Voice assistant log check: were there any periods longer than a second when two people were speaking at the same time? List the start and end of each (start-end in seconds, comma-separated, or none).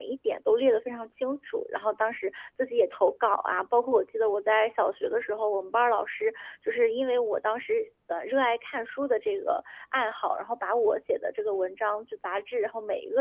none